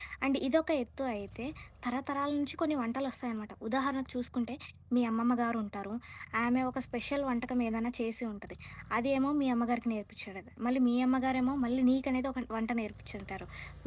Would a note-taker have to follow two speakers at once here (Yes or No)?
No